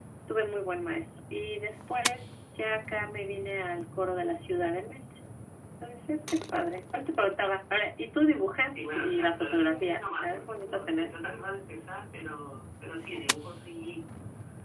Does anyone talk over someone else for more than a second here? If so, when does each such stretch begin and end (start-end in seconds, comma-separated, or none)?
8.7-11.1